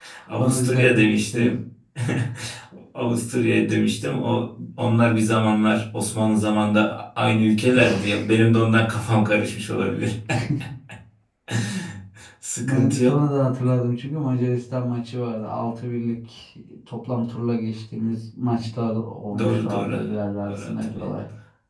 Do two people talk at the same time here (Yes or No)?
Yes